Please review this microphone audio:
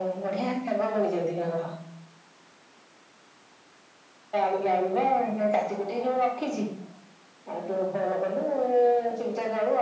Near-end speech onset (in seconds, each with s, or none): none